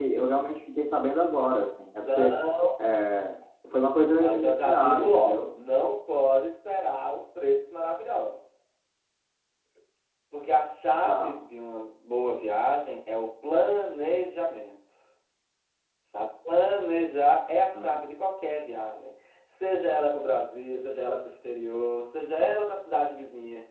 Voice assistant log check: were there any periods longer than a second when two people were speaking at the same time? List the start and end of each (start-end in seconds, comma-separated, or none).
4.2-5.5